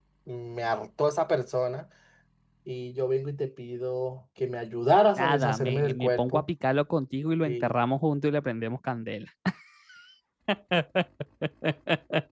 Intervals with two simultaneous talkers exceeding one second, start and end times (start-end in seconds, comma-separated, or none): 5.2-6.5